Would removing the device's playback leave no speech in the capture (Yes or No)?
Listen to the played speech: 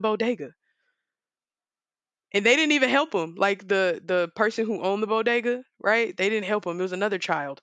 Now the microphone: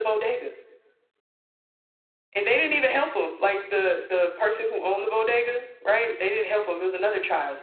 Yes